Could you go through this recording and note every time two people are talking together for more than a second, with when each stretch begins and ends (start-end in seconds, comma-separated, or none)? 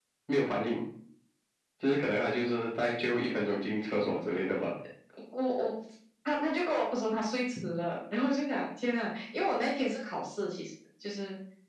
none